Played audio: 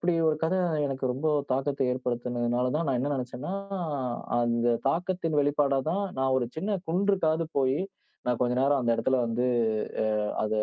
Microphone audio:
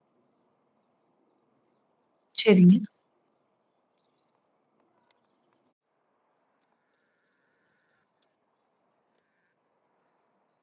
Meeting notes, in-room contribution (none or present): present